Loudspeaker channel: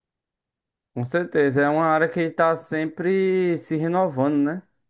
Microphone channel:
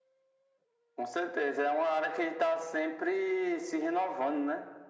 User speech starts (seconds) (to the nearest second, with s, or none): none